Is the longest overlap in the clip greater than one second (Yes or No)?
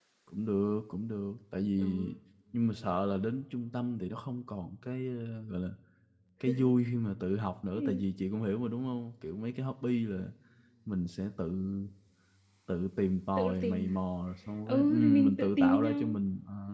Yes